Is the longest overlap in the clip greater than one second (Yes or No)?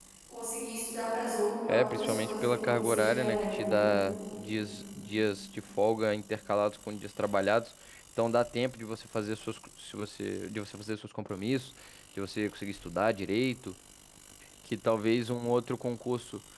Yes